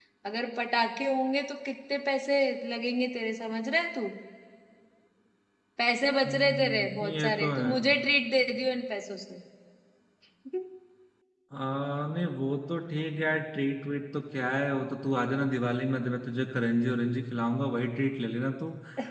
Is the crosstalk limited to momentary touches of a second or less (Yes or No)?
No